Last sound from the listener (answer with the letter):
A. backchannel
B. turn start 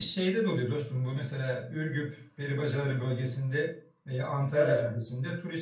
A